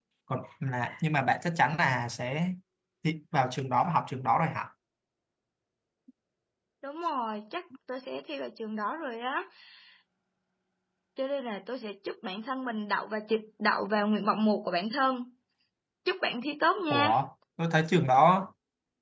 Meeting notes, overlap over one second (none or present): none